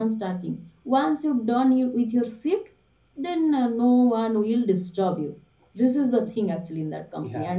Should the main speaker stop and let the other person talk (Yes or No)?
Yes